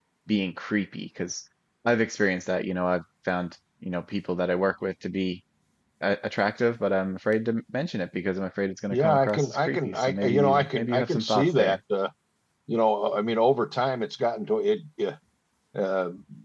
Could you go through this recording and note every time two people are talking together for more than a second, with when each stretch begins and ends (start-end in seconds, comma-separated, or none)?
8.9-11.8